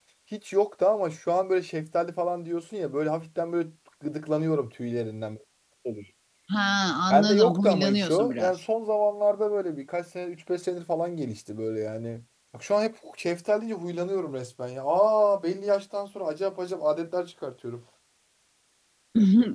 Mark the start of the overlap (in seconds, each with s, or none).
7.1 s